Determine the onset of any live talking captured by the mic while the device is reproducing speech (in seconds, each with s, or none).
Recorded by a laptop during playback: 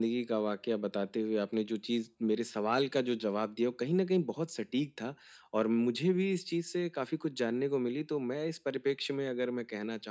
none